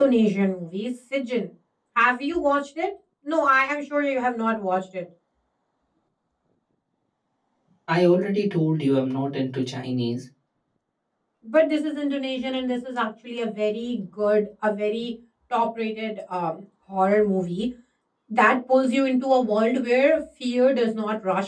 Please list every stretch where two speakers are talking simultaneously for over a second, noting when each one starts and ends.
none

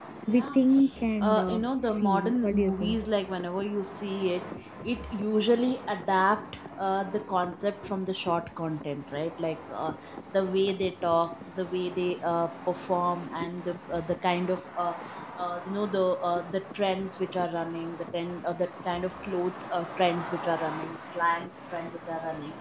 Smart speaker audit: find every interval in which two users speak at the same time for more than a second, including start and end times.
1.2-3.0

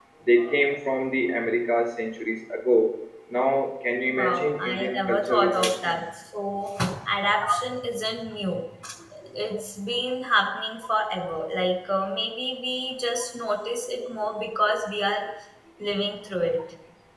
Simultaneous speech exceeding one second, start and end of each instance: 4.1-6.0

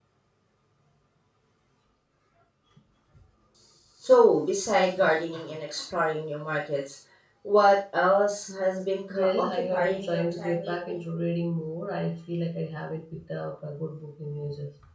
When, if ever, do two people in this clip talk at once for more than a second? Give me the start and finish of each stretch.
9.1-11.0

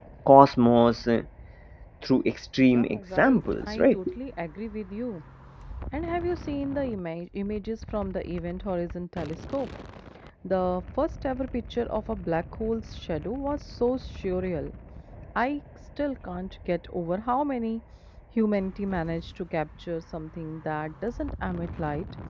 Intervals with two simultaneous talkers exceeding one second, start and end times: 2.7-4.0

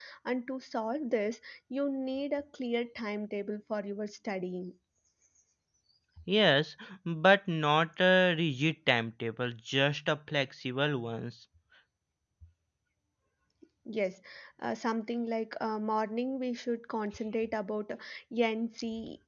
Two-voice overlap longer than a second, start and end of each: none

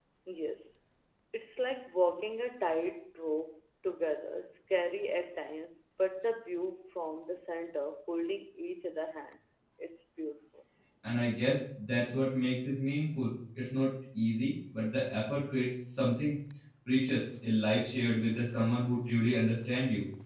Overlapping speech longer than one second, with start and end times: none

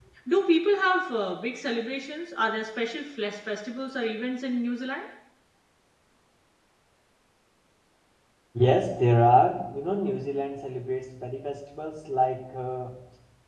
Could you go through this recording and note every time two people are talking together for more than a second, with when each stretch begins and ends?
none

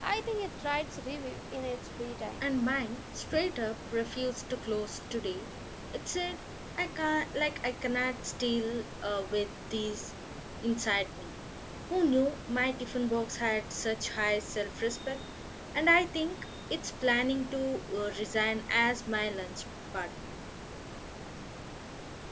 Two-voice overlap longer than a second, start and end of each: none

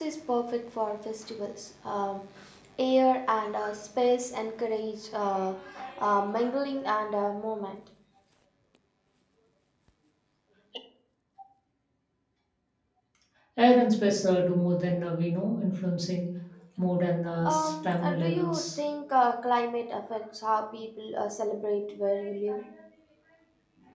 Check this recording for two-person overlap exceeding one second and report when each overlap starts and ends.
17.4-18.8

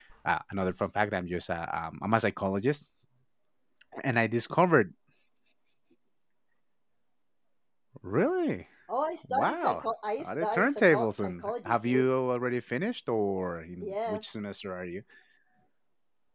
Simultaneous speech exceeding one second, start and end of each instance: 10.2-12.1

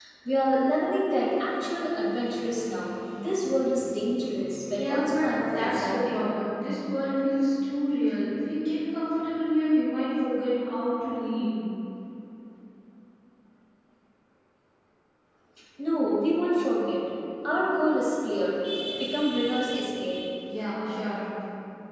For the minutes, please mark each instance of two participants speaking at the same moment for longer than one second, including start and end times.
4.7-6.2

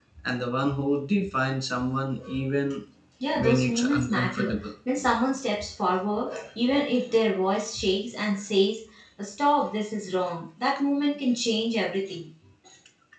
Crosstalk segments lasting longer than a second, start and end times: 3.4-4.5

